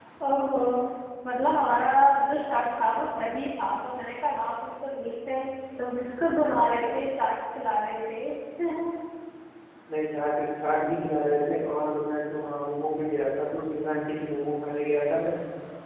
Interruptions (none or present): none